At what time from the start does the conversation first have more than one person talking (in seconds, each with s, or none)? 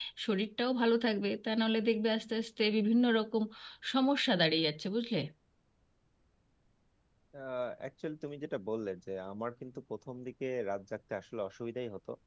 none